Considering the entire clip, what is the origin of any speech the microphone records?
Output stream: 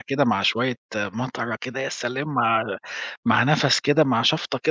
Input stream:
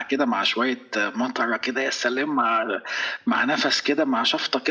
echo only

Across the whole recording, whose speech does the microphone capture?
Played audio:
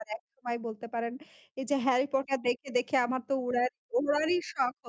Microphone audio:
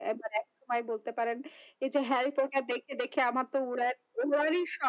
echo only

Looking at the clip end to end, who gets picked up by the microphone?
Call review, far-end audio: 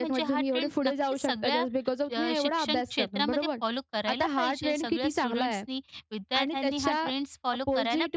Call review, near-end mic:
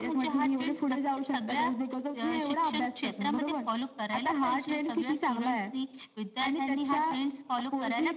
echo only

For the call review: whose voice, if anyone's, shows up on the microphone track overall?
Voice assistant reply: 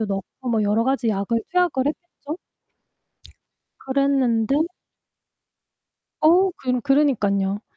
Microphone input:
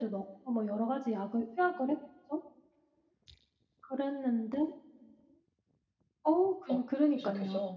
both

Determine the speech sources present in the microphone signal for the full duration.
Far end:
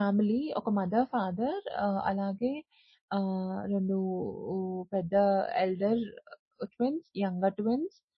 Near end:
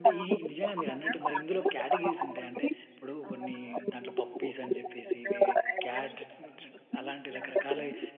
both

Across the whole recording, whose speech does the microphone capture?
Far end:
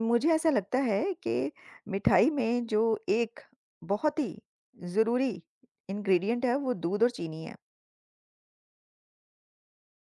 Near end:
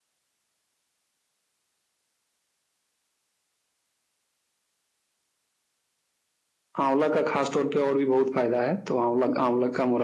user only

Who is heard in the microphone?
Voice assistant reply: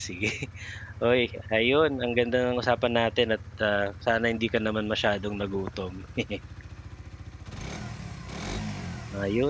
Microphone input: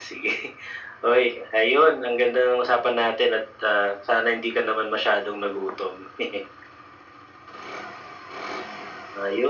echo only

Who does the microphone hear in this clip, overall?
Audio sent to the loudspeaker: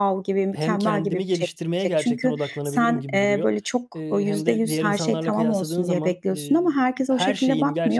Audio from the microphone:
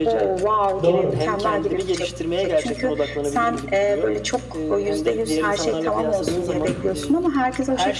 both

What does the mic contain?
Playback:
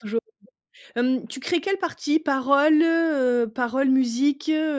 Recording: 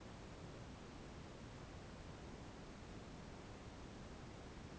neither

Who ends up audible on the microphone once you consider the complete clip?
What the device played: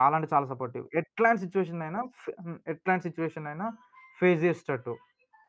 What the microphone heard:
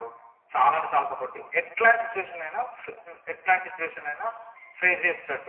echo only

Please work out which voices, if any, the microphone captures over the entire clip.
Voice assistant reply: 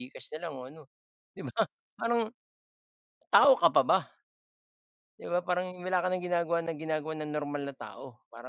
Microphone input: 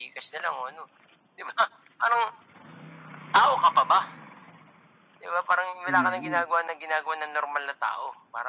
both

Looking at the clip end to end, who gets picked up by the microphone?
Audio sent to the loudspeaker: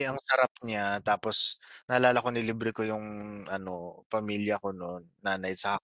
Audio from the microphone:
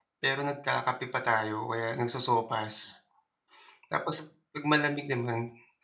user only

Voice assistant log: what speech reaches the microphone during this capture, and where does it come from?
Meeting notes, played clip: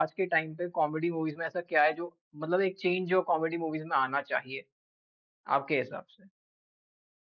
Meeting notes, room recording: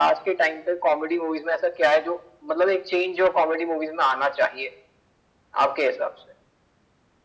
echo only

